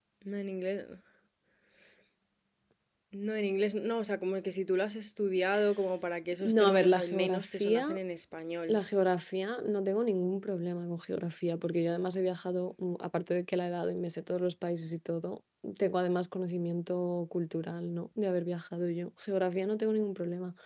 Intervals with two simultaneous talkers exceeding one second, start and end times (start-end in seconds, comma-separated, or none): 6.4-8.0